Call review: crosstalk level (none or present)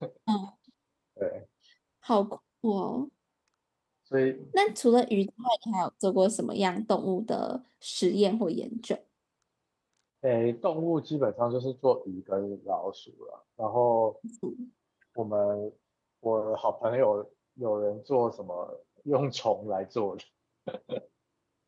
none